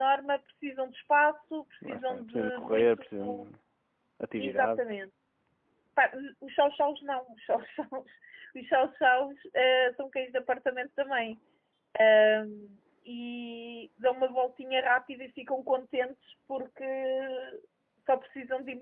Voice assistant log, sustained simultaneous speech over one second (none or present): present